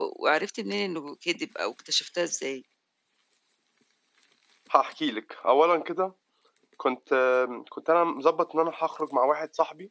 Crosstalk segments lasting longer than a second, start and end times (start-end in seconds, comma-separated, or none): none